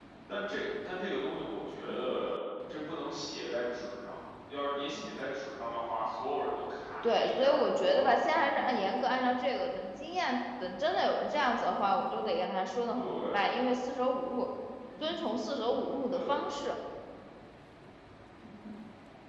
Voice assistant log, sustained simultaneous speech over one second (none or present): present